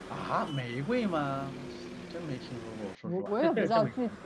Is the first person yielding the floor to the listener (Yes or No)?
Yes